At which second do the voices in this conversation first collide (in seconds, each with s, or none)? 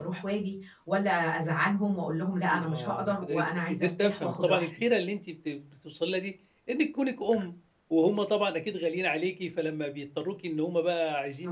2.5 s